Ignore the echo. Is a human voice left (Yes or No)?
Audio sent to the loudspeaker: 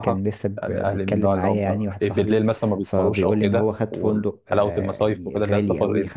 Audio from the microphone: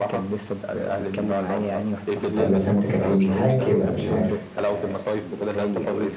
Yes